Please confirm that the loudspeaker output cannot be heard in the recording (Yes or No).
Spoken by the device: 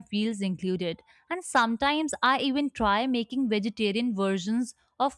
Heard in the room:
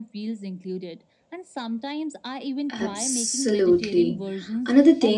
No